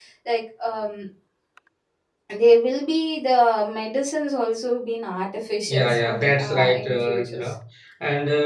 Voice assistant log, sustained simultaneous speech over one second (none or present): present